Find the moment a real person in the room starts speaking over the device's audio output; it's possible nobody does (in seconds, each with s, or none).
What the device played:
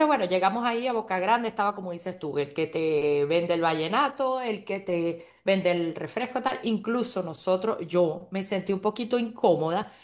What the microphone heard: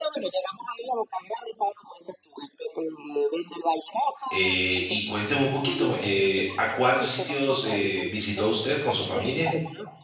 4.3 s